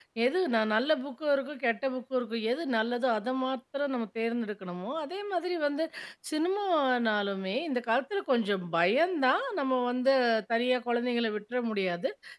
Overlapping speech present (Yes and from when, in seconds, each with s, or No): No